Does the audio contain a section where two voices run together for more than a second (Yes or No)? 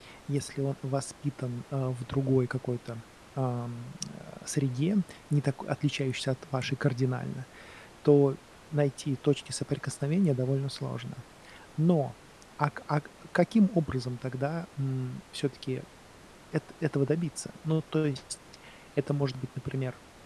No